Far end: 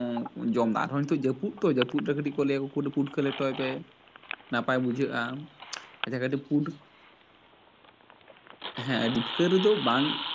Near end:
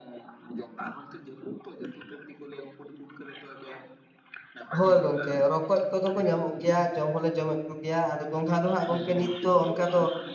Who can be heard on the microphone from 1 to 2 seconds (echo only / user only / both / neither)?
echo only